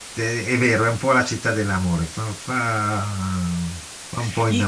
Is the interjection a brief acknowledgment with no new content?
No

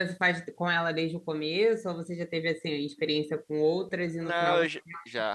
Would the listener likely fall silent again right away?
No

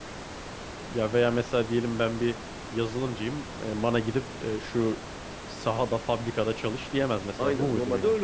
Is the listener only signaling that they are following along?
No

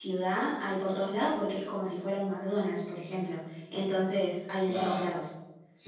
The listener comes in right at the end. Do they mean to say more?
Yes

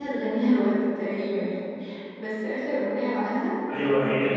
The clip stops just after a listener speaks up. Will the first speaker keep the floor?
No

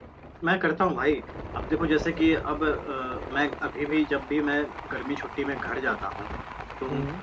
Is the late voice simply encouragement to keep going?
Yes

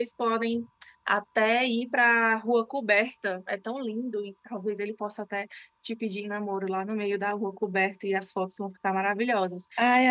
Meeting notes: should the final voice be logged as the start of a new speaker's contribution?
Yes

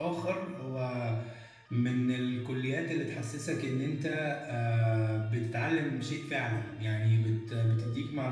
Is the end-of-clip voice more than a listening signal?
No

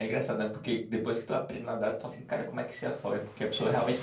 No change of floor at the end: Yes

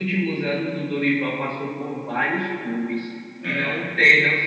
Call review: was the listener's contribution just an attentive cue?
Yes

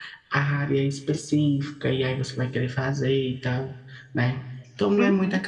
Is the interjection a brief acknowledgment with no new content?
Yes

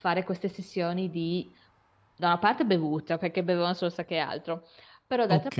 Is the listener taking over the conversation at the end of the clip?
No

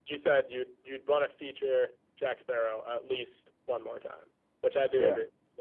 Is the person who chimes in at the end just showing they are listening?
Yes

